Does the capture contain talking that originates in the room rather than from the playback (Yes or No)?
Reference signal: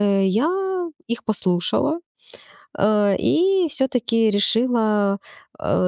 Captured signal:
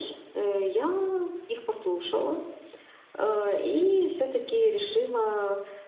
No